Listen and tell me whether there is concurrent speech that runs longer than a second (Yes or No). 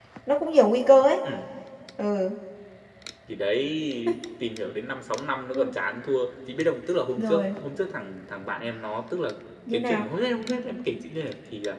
No